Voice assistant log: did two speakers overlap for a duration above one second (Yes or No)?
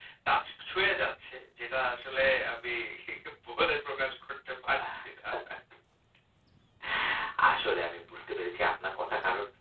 No